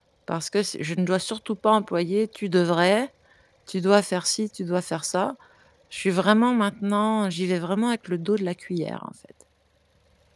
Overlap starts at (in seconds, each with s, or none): none